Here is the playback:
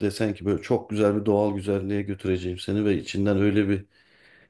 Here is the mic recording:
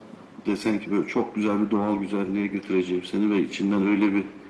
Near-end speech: none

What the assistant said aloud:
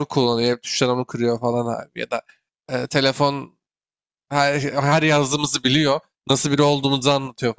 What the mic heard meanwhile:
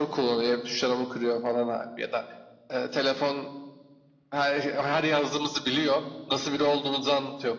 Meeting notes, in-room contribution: none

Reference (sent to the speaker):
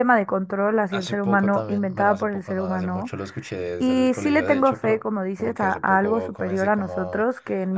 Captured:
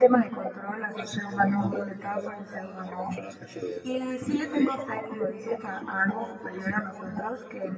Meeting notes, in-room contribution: none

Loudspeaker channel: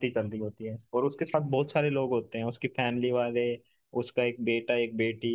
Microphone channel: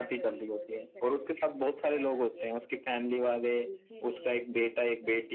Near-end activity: present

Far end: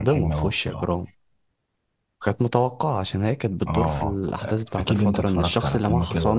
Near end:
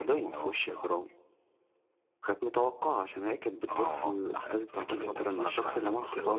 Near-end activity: none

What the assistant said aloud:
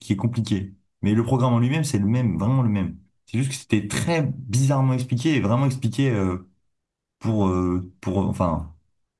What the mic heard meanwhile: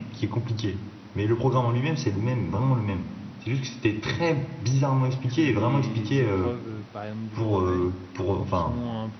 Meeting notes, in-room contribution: present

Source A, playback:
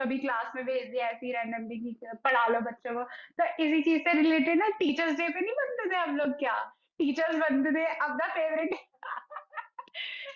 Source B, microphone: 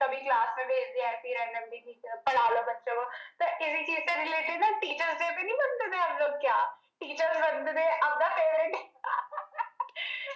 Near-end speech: none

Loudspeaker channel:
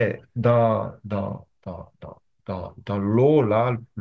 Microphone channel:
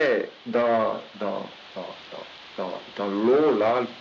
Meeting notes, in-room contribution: none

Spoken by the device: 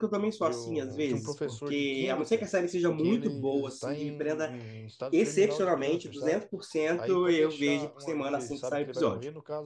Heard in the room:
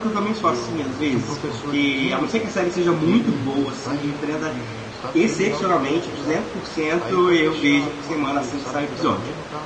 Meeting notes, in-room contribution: none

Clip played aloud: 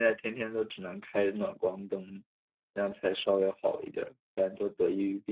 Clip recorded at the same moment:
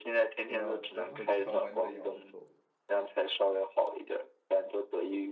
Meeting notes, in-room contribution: present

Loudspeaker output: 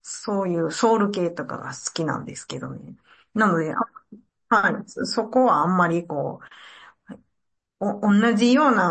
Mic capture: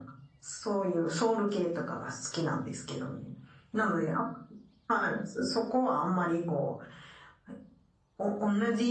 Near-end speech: none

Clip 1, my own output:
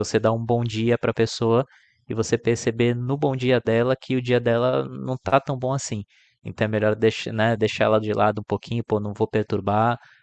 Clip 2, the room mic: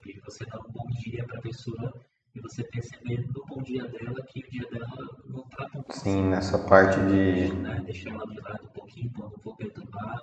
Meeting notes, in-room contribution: present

